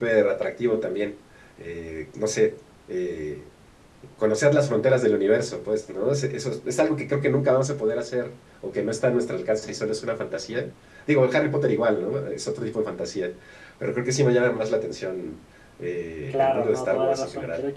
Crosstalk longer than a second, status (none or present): present